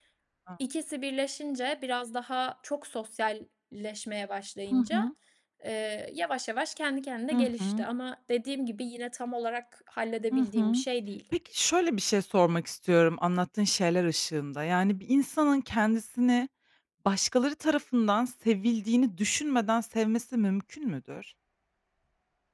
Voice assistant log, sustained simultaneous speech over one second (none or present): none